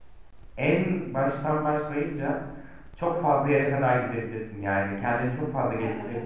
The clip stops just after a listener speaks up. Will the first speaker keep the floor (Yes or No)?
Yes